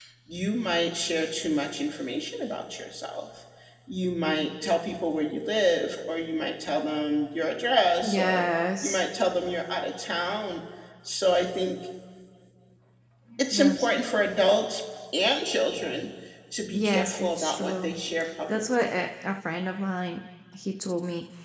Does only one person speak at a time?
No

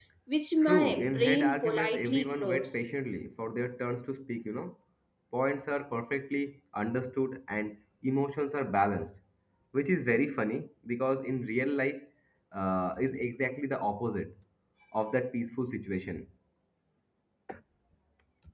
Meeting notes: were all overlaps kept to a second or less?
No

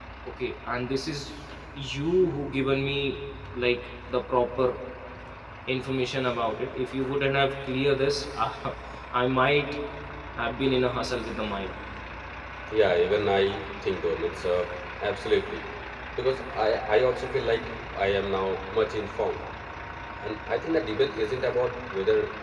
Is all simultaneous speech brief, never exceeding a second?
Yes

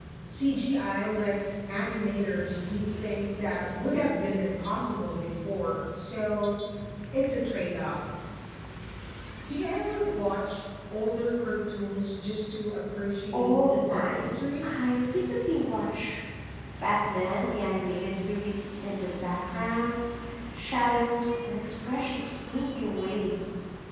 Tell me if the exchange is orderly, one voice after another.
No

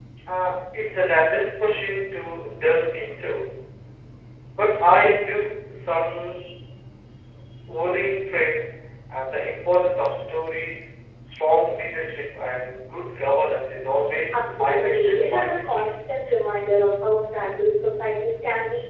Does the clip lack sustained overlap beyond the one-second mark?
No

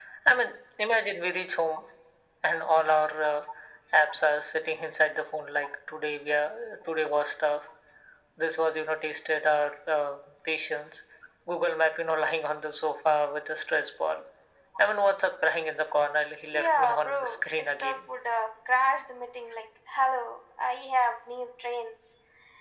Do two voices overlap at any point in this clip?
Yes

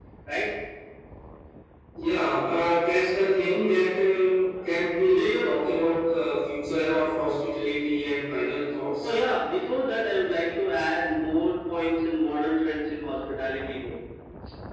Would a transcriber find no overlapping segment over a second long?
Yes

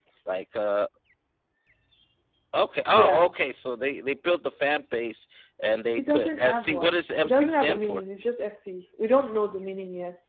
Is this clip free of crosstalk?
No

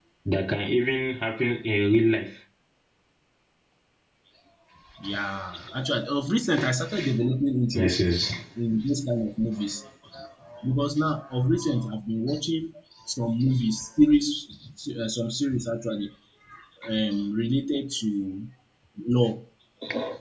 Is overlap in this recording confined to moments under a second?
Yes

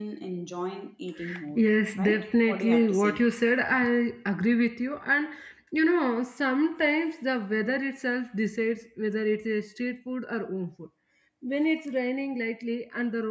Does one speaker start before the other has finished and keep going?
Yes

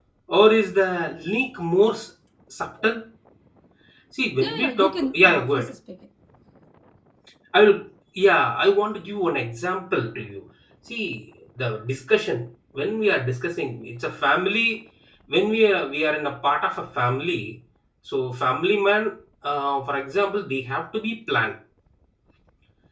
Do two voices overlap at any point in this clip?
Yes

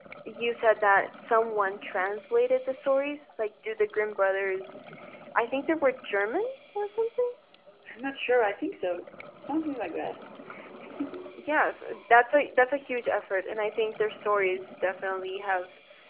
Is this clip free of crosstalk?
Yes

